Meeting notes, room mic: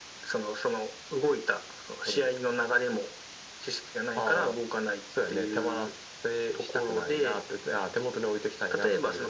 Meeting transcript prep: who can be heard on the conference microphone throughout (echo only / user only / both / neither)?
echo only